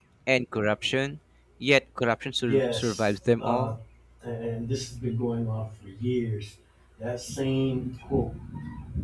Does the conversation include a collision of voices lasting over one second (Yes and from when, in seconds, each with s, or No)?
Yes, from 2.4 s